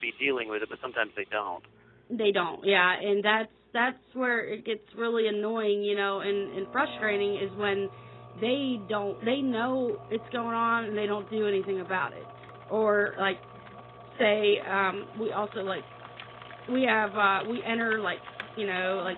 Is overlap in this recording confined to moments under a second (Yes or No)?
Yes